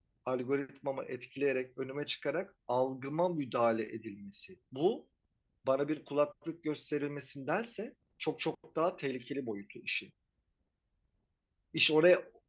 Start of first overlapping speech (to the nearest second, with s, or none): none